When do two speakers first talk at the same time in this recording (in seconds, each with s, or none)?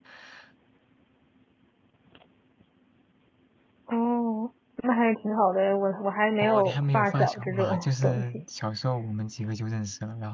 6.4 s